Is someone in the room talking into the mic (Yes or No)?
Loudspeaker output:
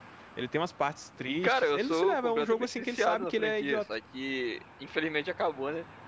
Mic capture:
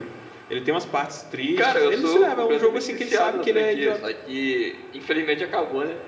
No